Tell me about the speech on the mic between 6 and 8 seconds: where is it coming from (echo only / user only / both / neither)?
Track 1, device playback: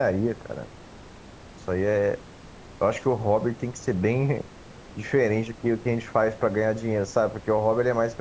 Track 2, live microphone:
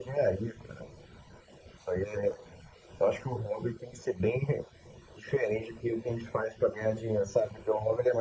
echo only